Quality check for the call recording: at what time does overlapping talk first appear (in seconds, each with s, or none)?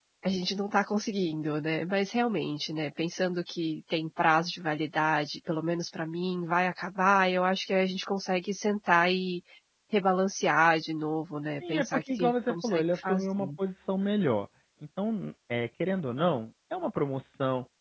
11.6 s